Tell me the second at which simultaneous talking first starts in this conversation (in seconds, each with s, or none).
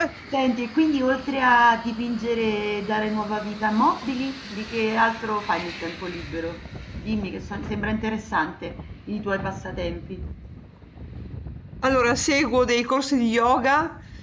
none